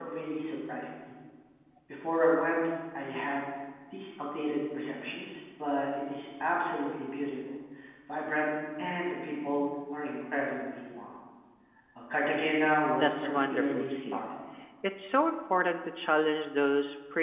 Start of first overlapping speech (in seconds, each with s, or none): 13.0 s